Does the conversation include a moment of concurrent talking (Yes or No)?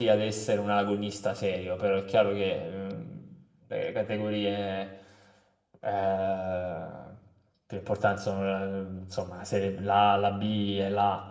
No